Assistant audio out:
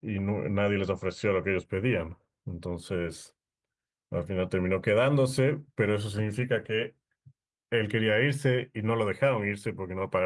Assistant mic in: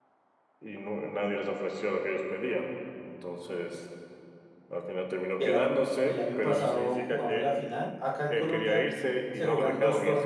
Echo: present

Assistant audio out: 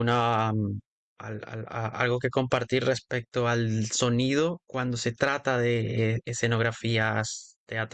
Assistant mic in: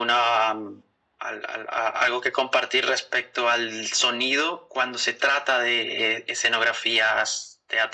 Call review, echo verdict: present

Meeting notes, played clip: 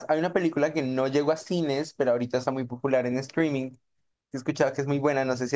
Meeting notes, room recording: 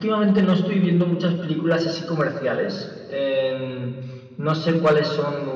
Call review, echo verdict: none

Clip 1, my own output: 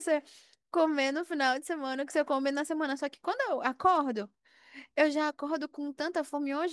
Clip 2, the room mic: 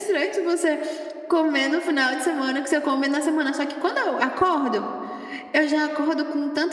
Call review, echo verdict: present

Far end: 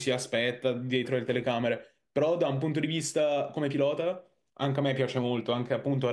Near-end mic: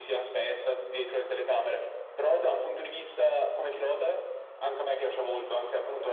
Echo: present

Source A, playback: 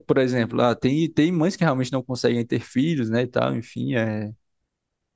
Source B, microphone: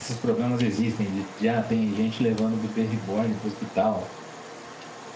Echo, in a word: none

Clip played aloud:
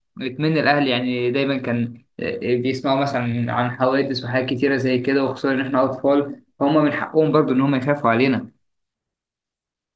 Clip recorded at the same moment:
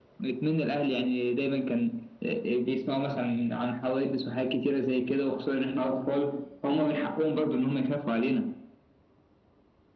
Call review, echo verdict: present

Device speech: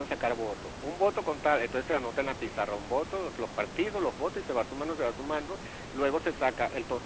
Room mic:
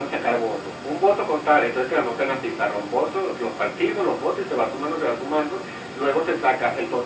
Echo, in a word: present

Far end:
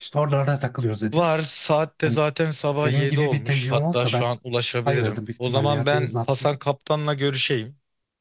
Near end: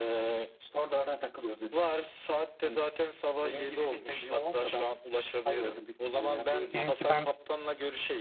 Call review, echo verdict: present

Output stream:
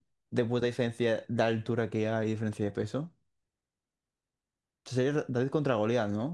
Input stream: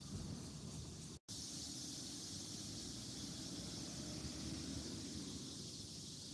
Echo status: none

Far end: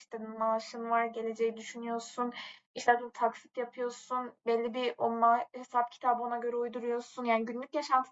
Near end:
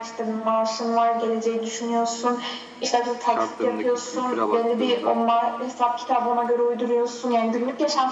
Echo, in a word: present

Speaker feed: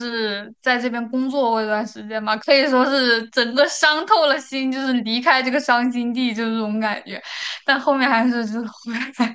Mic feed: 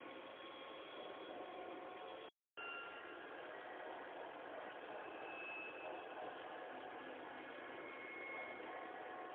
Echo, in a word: none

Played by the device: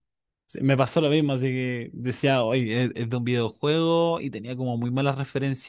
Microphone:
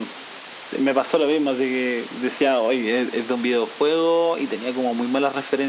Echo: present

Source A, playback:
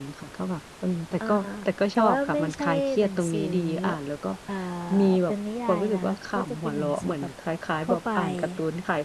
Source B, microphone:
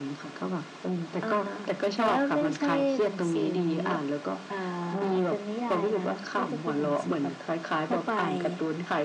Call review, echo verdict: present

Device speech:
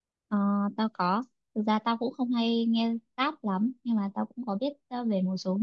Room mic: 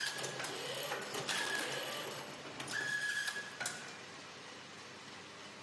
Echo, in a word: none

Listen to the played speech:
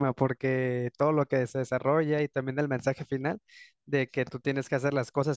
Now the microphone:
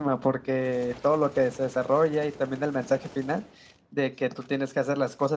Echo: present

